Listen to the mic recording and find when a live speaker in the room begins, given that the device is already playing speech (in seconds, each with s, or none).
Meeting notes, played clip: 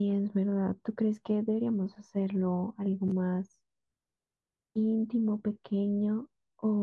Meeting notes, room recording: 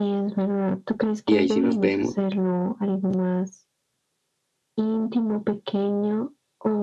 1.2 s